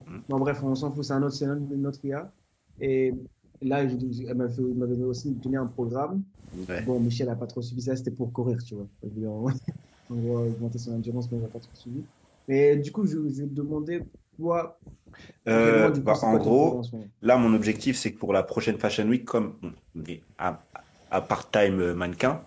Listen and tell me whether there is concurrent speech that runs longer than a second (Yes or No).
Yes